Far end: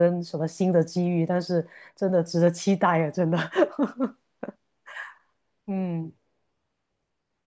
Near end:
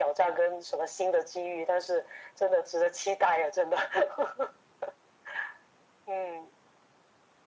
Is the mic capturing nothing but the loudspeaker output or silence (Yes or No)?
Yes